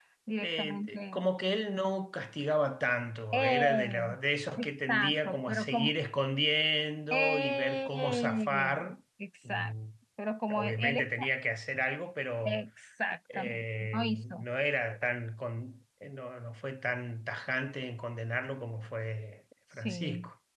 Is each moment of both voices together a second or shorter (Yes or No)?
No